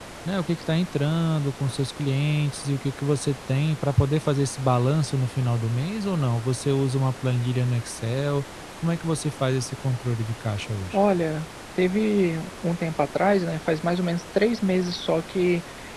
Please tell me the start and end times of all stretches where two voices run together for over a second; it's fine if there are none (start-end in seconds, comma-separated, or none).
none